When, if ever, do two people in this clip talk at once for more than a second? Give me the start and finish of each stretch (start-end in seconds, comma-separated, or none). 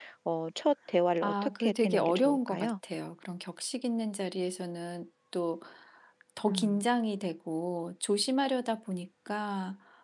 1.2-2.7